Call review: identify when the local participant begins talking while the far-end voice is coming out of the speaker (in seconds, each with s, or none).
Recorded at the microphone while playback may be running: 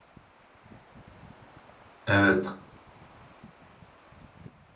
2.1 s